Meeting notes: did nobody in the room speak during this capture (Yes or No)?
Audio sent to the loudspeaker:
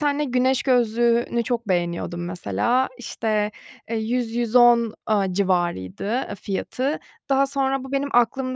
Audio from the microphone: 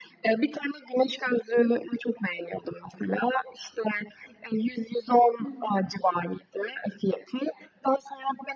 No